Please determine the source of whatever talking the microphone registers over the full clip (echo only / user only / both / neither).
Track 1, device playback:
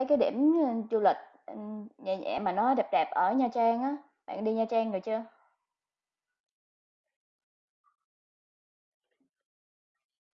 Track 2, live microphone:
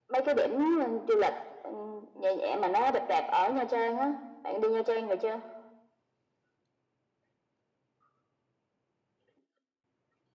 echo only